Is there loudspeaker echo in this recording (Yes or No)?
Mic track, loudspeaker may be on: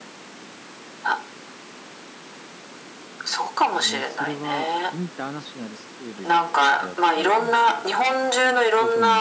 Yes